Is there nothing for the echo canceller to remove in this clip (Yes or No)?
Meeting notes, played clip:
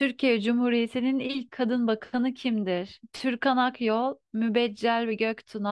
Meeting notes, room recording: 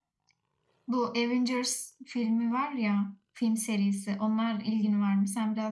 Yes